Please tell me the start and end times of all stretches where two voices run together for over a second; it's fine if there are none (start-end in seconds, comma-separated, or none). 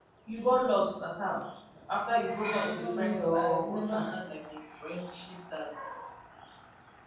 2.6-4.1